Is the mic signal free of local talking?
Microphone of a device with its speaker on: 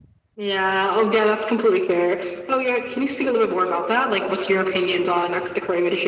Yes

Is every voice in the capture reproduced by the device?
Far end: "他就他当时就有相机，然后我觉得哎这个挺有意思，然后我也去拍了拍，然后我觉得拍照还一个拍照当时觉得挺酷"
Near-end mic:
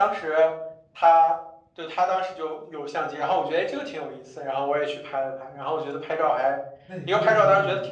No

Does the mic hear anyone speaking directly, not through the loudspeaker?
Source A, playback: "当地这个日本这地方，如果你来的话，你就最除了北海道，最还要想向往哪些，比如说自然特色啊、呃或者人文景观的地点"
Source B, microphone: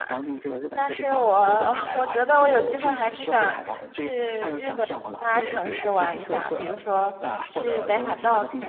Yes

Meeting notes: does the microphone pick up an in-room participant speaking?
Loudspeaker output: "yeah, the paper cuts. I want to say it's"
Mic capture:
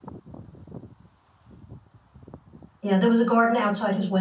Yes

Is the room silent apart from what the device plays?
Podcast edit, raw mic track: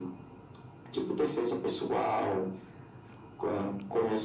Yes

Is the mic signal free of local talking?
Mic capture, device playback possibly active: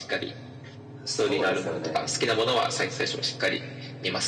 No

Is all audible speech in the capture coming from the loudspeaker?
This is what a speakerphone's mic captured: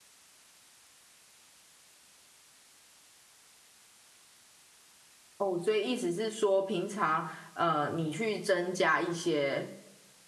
No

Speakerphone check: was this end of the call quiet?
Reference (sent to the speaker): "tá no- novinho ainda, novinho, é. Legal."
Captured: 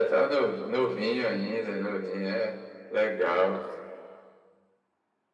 Yes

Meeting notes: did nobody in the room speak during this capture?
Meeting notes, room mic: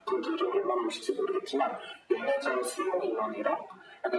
Yes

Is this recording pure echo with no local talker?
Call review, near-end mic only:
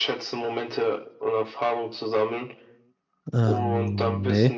No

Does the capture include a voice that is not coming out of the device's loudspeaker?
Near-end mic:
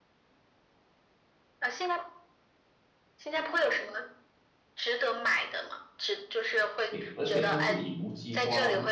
Yes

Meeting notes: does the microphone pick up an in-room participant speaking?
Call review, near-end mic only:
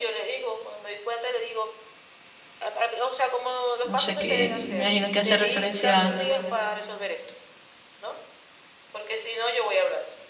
Yes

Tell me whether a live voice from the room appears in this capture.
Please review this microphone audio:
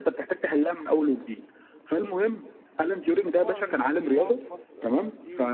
Yes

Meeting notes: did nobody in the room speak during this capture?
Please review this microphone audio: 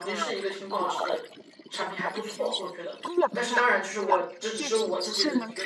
No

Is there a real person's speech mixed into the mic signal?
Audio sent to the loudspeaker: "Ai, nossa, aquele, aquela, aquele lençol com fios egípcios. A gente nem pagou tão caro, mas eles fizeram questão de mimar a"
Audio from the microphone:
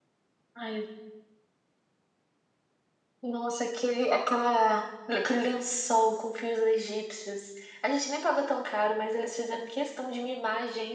No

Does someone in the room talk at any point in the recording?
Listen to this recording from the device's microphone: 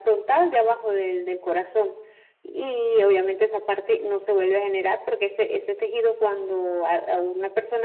No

